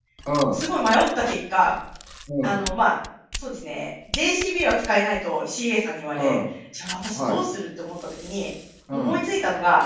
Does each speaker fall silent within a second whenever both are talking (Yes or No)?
Yes